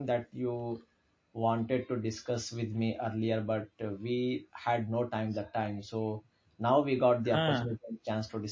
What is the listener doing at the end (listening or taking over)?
listening